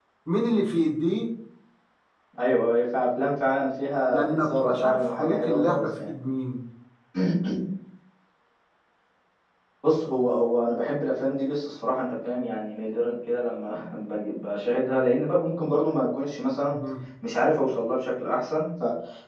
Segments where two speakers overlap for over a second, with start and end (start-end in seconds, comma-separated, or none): 4.1-6.1